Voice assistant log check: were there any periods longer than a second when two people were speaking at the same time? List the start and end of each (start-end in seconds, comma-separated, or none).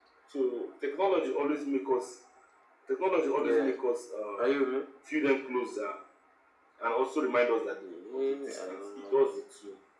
8.1-9.4